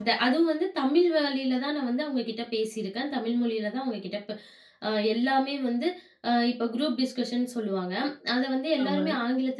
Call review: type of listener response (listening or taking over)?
listening